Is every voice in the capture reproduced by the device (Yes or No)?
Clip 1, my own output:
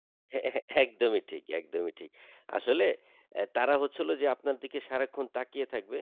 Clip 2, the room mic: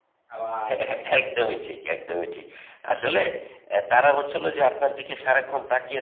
No